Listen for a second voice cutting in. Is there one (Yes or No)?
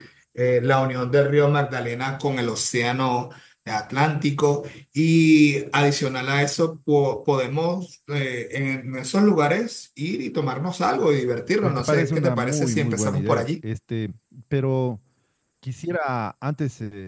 Yes